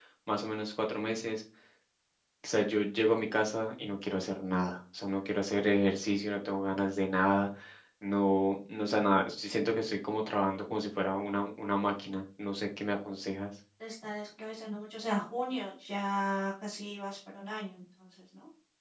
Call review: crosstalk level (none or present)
none